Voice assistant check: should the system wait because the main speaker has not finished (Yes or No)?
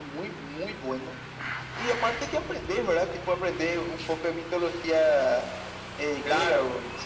No